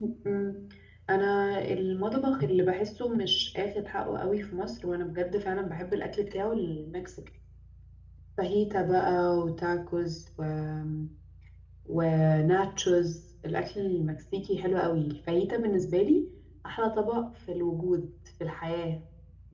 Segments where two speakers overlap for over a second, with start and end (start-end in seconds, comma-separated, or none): none